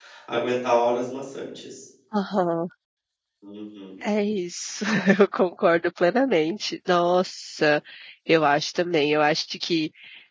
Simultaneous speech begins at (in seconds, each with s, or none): none